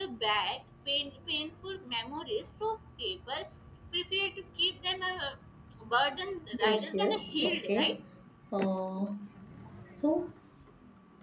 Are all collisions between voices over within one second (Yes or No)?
No